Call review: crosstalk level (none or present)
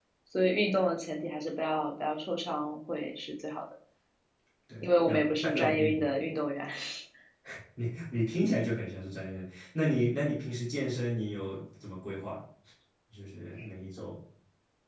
present